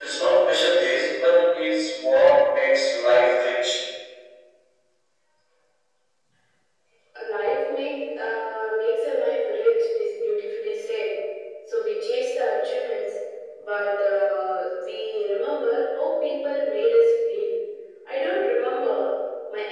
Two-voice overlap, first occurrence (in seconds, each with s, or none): none